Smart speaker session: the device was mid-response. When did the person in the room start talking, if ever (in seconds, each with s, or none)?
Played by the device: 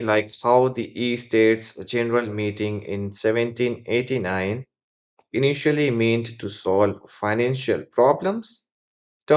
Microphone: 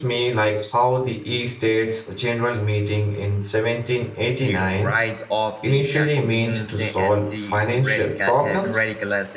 4.4 s